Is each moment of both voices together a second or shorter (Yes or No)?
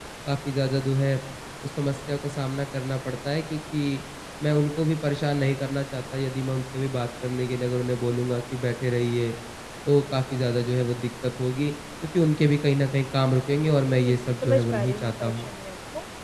No